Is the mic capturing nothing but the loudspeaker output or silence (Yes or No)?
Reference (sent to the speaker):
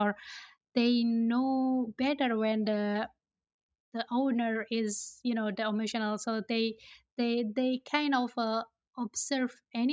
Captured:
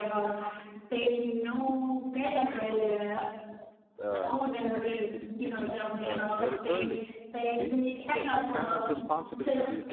No